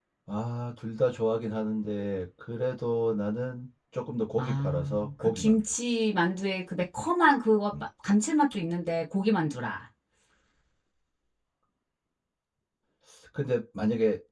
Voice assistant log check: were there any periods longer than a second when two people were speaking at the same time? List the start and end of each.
4.4-5.6

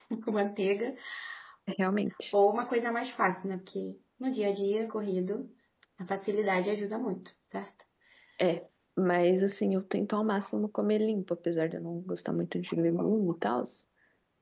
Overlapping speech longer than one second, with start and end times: none

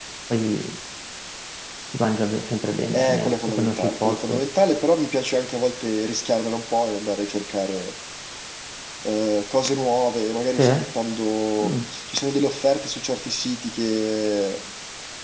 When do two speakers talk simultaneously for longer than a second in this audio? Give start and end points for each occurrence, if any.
2.9-4.4

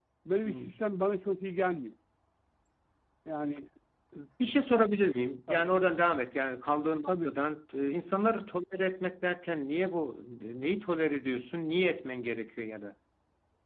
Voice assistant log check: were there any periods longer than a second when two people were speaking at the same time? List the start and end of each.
none

